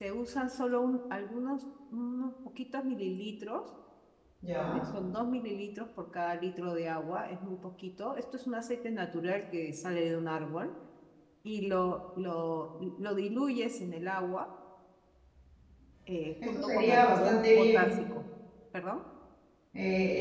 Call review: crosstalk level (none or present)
present